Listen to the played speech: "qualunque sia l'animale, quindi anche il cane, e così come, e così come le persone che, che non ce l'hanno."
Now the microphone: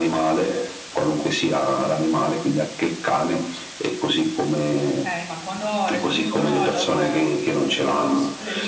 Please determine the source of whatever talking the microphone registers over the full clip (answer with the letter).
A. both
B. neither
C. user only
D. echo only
A